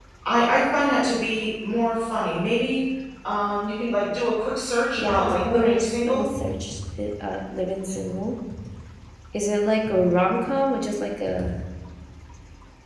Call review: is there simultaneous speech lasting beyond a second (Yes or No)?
Yes